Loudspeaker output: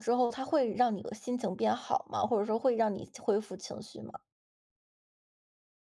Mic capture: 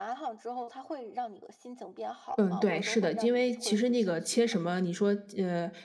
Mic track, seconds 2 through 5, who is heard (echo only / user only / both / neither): both